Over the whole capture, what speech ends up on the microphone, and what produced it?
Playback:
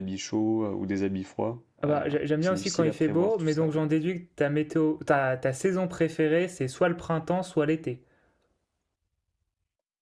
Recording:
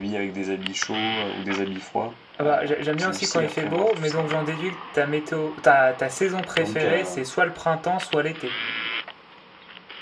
both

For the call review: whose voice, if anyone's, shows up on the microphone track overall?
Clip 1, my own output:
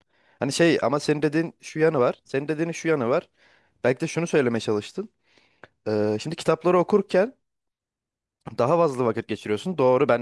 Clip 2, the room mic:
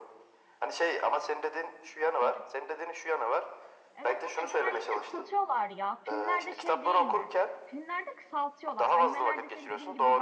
both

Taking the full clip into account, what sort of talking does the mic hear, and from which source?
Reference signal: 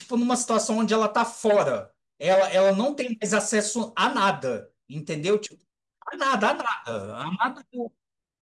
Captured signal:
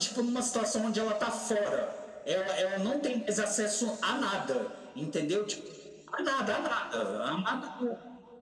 echo only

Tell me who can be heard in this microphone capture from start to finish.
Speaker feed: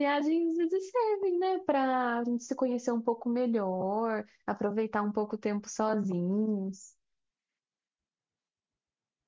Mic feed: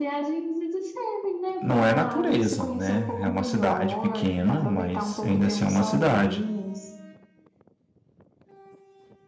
both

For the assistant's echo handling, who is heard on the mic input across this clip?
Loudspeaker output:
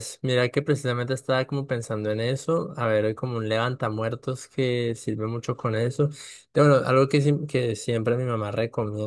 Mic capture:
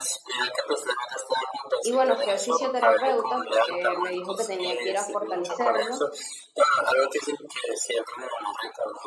both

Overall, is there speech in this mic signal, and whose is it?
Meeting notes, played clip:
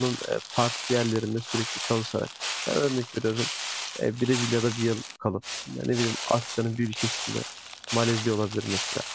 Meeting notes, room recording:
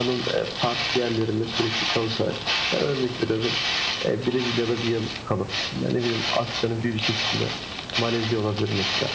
echo only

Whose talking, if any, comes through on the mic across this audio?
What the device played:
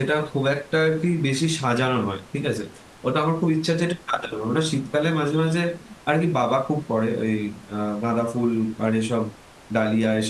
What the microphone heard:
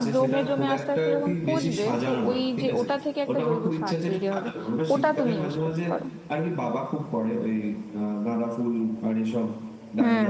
both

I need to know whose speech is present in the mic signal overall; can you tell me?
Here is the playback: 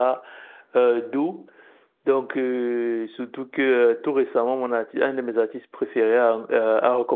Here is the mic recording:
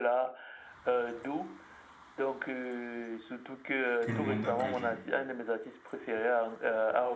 both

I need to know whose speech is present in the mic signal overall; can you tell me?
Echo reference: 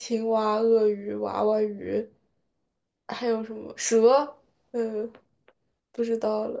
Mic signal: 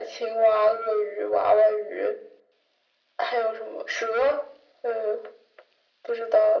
echo only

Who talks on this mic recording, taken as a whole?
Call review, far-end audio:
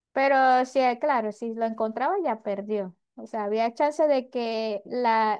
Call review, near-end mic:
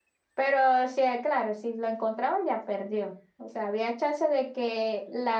echo only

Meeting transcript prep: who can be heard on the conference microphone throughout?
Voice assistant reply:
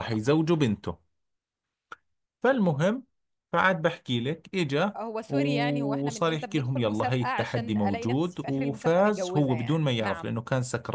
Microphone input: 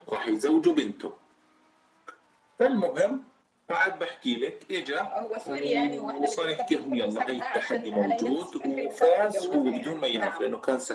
echo only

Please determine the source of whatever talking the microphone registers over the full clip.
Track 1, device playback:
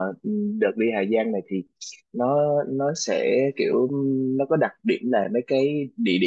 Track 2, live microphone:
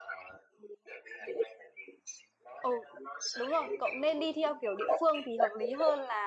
both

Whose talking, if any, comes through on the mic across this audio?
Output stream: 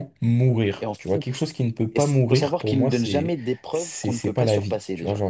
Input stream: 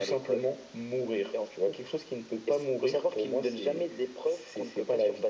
echo only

